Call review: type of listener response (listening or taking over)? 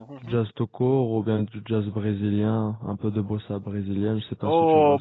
taking over